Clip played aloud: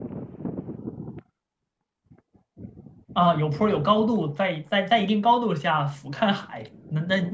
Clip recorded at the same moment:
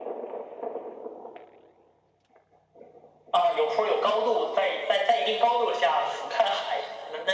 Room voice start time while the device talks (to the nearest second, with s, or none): none